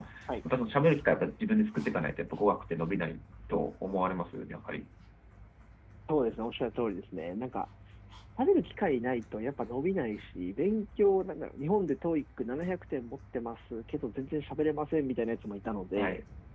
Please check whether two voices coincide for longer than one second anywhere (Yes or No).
No